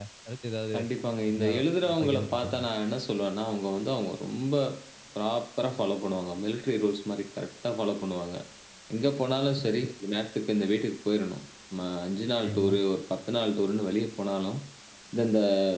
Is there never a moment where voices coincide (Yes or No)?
No